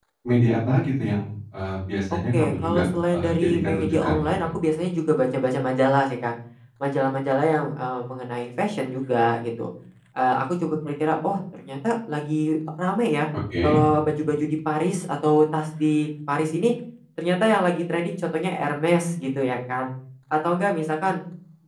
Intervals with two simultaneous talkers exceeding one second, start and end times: 2.3-4.3

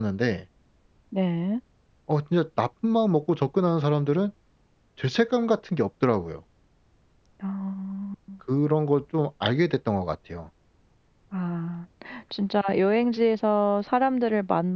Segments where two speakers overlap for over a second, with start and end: none

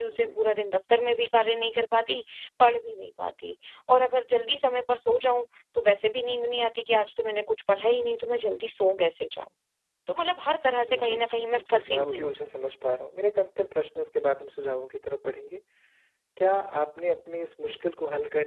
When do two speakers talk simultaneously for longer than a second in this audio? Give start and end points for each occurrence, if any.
10.9-12.4

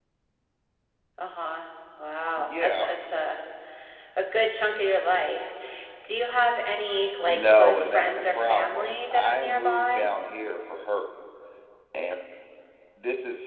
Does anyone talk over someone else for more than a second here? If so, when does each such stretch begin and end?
7.3-10.1

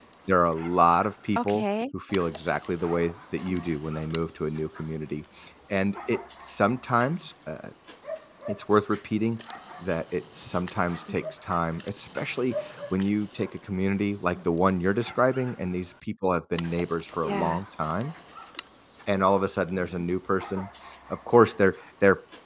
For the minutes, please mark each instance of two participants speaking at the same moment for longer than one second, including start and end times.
none

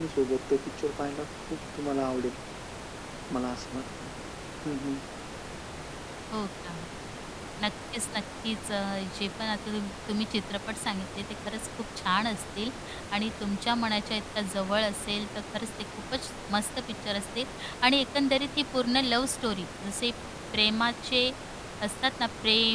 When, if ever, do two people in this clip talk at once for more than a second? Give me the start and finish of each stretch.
none

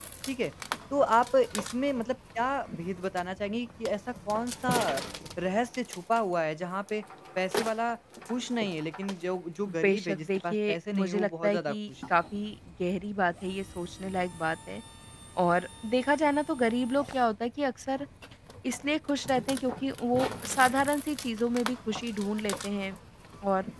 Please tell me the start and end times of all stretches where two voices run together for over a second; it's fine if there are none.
9.7-11.9

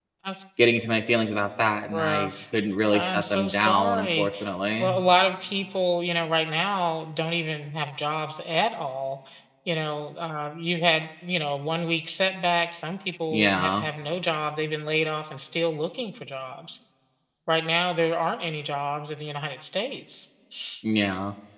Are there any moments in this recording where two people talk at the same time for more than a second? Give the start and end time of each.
1.9-4.3

